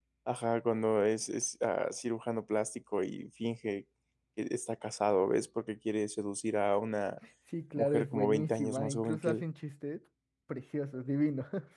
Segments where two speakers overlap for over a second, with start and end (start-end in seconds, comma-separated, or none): 7.8-9.4